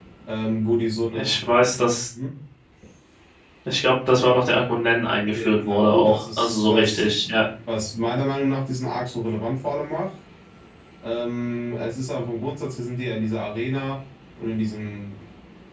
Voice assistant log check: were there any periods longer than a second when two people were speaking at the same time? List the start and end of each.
5.3-7.0

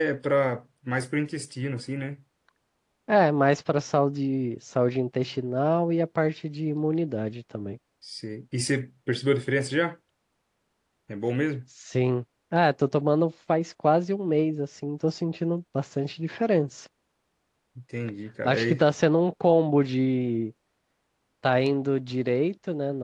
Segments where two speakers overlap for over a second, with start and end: none

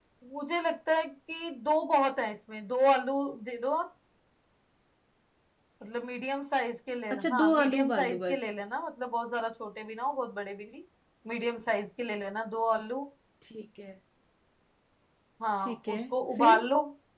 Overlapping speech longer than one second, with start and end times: 7.2-8.4

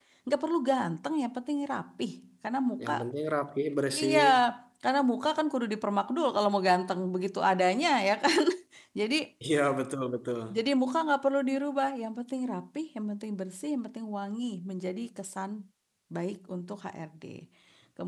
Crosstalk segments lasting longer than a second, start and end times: none

